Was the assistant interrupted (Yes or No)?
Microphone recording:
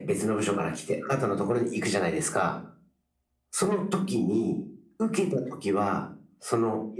No